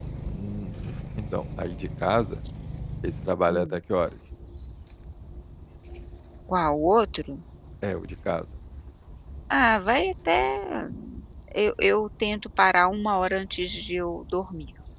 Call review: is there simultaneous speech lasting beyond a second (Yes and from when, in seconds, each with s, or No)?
No